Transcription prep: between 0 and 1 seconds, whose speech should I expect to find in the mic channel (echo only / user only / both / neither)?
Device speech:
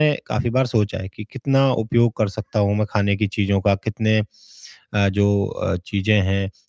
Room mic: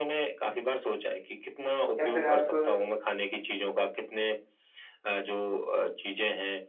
echo only